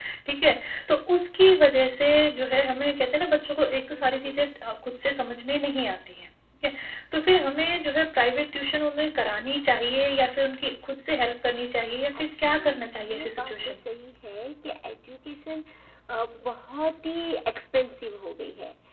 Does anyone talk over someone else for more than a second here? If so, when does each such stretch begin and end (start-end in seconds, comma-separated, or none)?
12.2-13.7